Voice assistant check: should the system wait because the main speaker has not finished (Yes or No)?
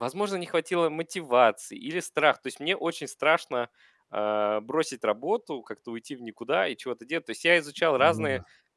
Yes